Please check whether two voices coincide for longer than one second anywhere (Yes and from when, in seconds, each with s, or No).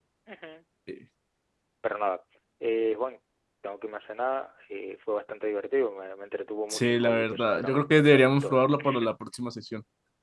Yes, from 6.7 s